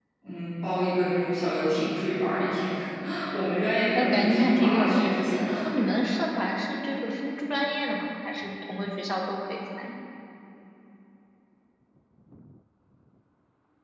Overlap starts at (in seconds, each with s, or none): 3.9 s